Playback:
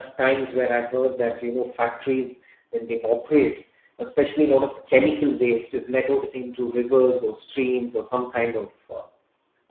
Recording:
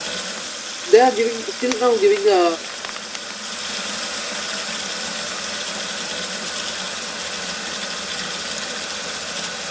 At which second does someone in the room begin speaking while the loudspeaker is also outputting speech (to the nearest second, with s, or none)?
1 s